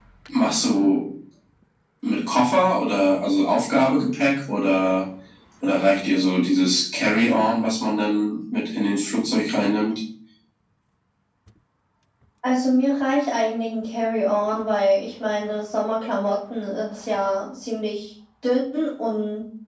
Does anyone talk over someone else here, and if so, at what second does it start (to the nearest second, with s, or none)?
none